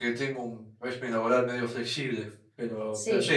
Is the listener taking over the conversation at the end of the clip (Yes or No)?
No